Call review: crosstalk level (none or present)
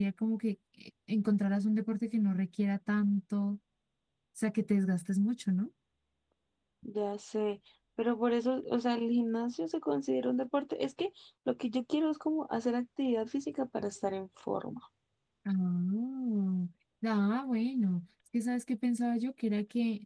none